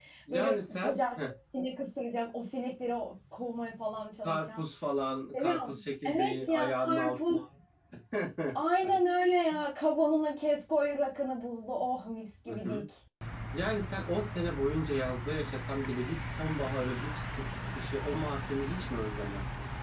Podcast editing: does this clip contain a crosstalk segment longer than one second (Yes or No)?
Yes